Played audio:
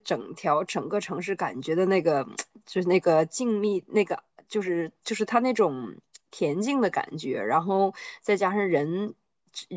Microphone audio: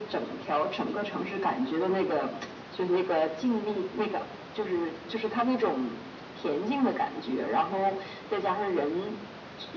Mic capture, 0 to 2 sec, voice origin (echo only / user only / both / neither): echo only